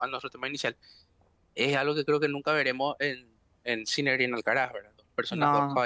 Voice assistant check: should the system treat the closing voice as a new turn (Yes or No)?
No